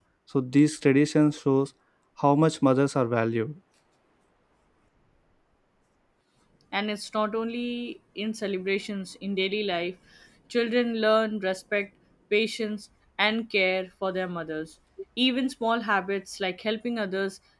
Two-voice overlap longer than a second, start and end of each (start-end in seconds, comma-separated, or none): none